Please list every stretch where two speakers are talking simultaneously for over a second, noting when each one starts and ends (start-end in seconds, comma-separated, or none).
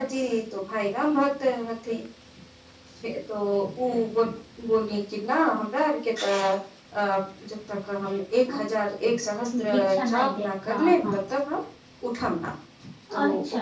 9.6-11.2